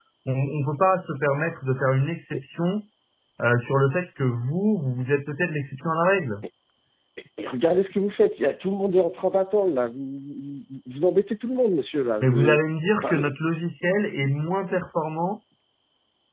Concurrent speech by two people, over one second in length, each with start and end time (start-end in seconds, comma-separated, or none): none